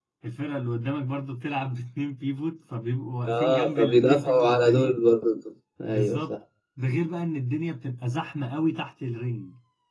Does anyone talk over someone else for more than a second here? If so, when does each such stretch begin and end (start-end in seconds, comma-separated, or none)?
3.3-5.0